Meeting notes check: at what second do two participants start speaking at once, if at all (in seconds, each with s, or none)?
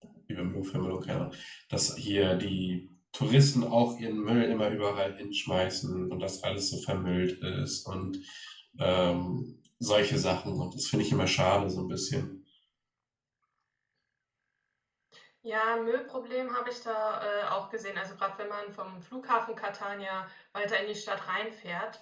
none